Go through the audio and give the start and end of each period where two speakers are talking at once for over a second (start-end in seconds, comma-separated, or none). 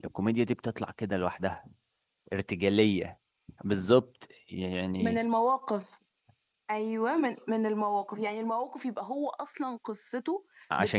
none